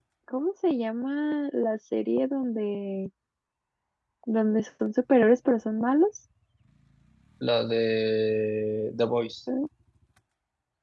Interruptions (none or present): none